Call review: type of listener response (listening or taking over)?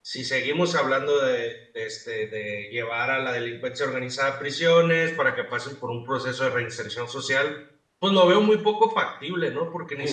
listening